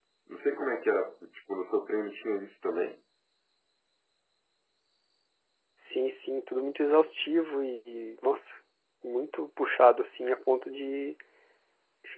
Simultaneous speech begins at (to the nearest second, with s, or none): none